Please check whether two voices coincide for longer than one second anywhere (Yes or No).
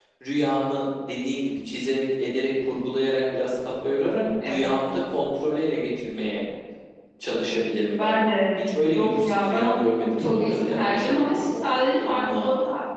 Yes